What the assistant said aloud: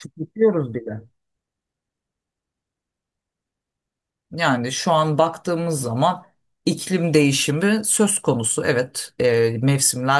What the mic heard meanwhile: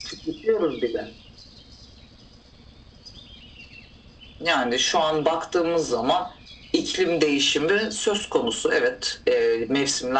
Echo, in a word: present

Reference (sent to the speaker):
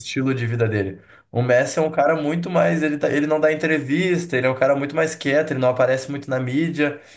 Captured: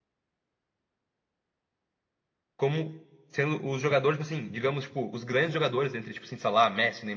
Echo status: none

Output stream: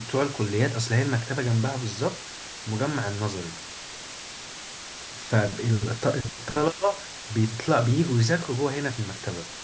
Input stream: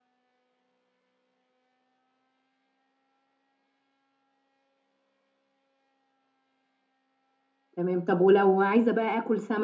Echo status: none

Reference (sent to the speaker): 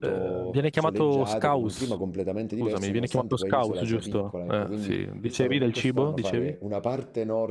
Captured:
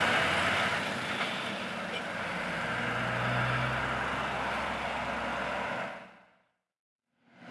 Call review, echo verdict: none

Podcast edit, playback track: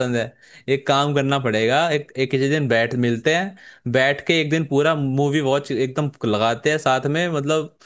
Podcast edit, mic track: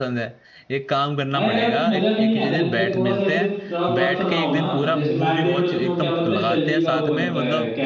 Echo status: present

